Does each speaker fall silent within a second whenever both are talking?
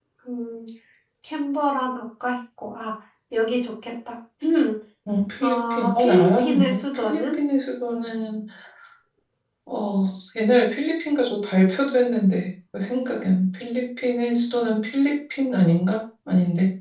No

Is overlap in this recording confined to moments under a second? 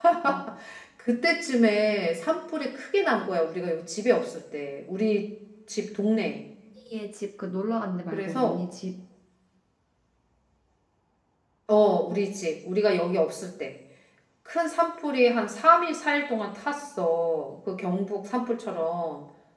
Yes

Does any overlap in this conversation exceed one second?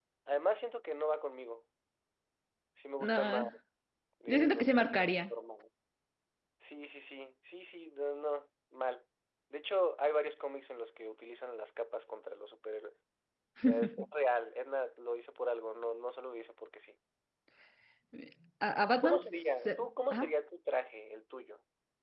Yes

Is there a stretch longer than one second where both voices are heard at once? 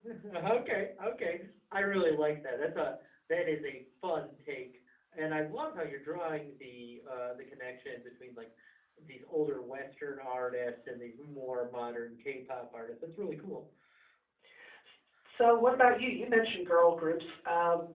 No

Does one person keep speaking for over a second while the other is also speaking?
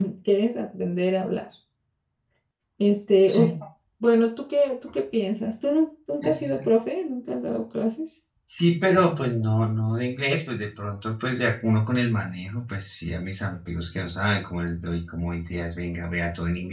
No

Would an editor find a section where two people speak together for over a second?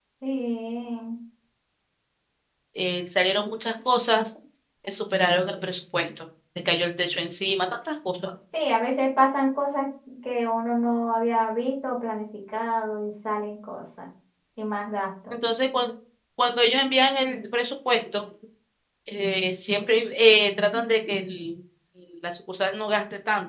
No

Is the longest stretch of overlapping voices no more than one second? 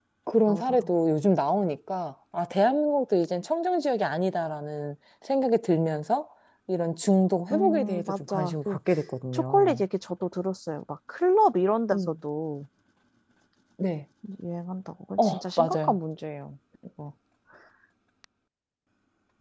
No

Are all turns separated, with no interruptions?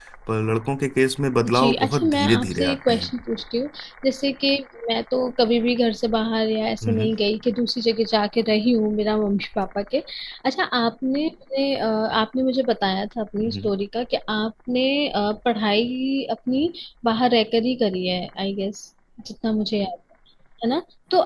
No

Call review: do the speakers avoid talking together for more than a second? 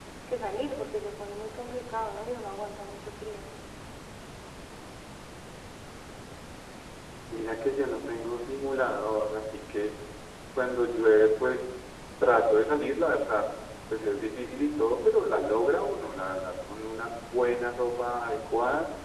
Yes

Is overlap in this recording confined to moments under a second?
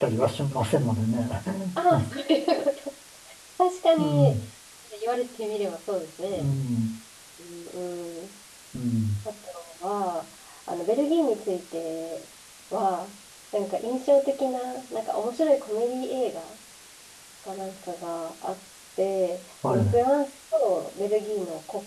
Yes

